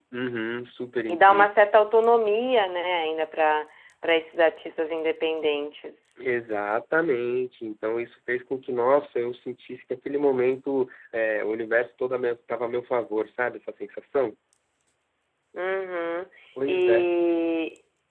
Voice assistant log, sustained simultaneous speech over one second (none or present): none